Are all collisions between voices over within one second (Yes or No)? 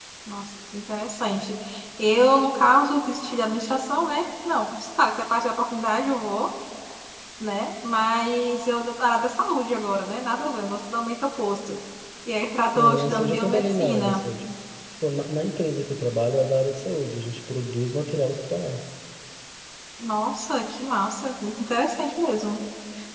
No